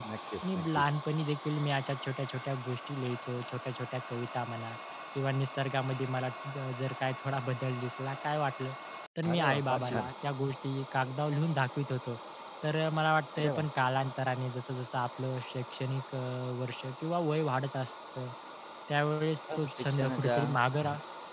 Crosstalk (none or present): present